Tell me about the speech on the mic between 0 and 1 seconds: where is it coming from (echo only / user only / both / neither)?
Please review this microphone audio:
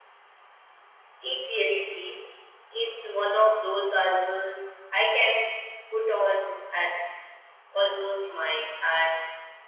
neither